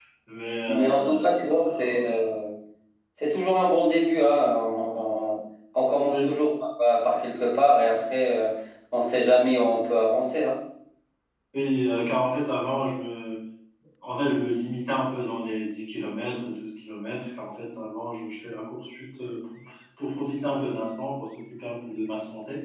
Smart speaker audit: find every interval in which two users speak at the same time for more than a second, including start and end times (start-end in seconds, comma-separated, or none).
0.7-2.2